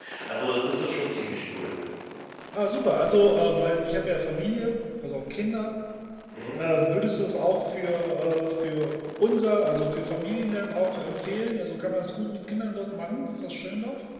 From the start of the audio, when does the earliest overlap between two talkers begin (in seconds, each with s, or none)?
none